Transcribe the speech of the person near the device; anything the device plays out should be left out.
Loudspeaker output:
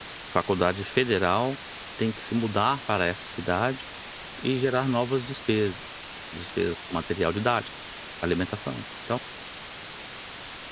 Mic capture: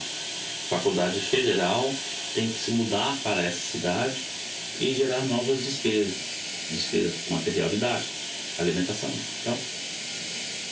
none

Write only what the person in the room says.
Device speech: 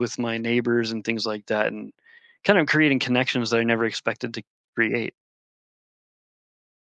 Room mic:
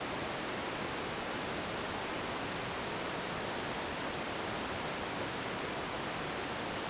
none

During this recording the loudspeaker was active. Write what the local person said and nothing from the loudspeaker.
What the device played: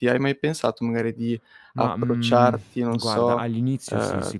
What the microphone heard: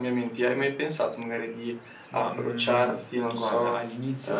none

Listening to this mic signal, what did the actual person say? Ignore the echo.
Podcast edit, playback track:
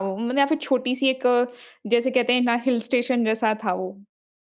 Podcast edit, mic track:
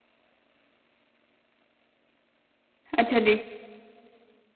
अच्छा जी।

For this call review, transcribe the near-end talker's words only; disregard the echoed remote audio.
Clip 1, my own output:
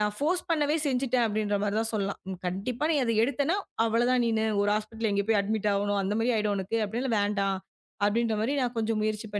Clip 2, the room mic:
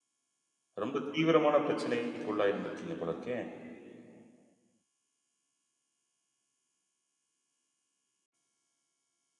ரொம்ப தீவிரமான பிரச்சனைக்கு உள்ளாயிருந்திருக்கீங்க போல இருக்கே.

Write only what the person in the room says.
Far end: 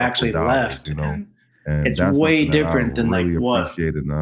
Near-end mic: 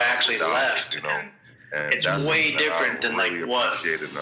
Yeah.

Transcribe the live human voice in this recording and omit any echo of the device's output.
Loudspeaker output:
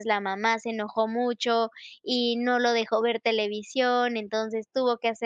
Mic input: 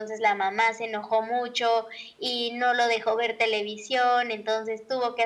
none

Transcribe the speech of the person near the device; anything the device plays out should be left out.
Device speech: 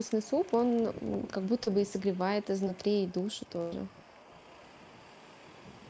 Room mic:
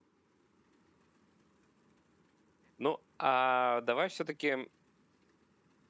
Ну, а давай все-таки

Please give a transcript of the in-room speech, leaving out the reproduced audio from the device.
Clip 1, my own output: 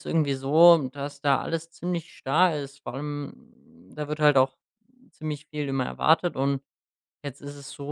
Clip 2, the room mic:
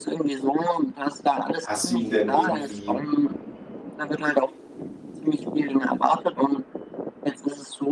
hast du ihm denn irgendwie

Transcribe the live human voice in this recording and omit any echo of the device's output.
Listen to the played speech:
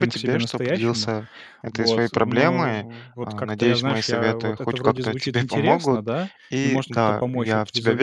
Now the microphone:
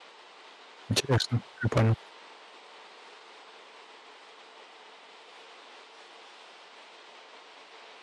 Интересно, я понял.

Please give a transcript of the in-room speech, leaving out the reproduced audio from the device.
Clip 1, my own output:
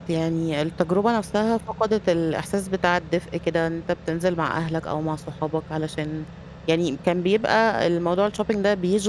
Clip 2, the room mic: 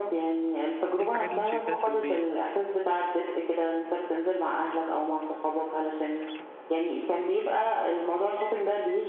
إيه الحاجات اللي أنتِ شايفاها سلبية؟

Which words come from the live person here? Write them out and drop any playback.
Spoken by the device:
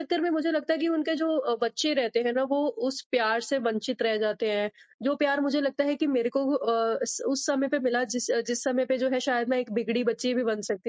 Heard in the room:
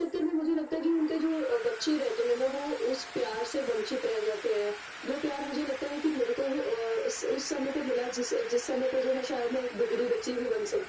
none

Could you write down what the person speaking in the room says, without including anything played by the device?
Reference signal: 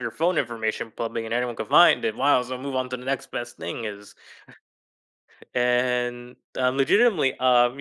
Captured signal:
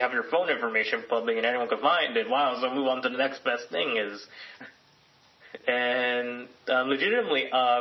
none

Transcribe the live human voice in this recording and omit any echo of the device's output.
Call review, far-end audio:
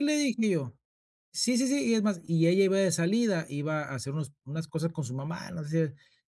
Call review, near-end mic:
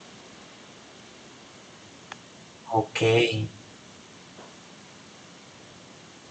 Okey,

